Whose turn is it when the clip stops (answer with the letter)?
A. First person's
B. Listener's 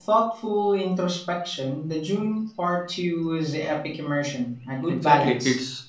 B